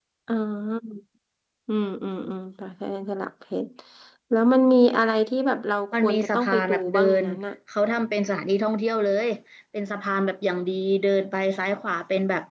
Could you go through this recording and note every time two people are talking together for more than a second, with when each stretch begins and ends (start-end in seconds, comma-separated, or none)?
5.9-7.2